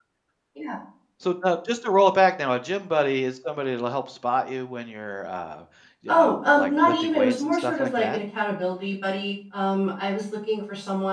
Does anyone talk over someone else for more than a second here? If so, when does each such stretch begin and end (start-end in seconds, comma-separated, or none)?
6.1-8.2